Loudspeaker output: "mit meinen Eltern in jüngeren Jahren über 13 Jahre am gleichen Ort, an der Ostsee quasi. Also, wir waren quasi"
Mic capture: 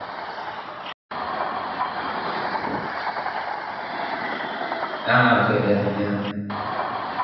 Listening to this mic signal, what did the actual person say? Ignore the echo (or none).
Ah, okay, ja, ja.